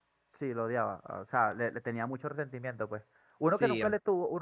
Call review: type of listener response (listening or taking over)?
listening